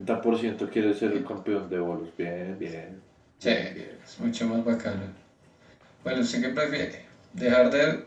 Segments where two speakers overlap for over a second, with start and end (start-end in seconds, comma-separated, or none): none